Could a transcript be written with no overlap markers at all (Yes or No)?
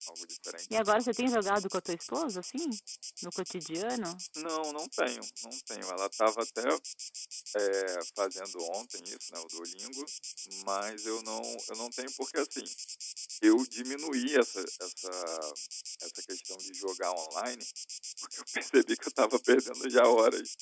Yes